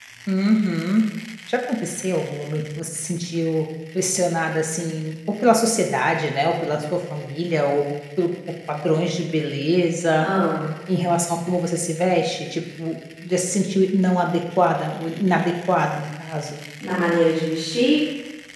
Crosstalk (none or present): none